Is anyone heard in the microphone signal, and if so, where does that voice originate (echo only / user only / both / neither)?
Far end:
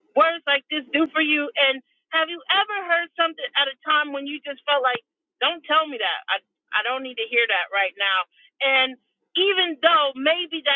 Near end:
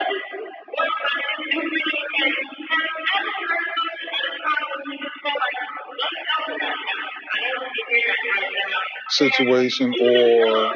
both